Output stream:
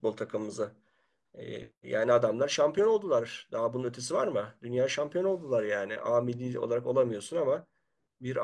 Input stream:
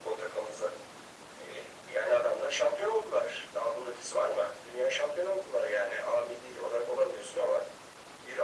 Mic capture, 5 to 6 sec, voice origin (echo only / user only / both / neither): echo only